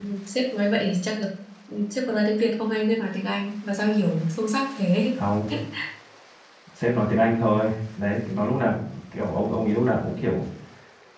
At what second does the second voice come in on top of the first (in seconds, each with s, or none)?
none